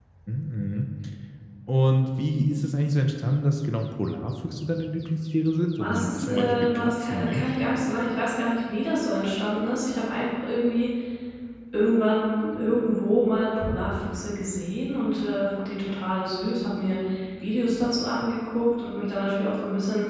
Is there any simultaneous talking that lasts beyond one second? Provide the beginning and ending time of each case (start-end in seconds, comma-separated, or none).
5.8-7.5